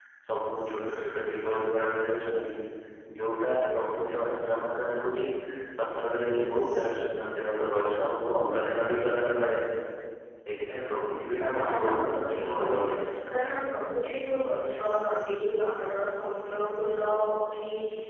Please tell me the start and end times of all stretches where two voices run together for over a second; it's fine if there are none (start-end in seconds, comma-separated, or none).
11.6-12.8